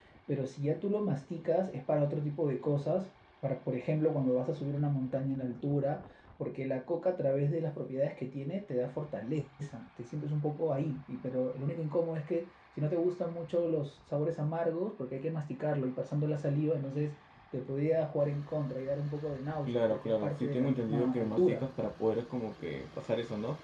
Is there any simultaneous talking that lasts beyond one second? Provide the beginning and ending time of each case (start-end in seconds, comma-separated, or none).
19.7-21.7